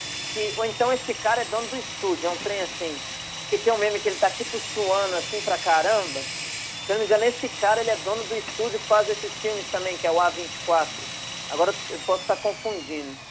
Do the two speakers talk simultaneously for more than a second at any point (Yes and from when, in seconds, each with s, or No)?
No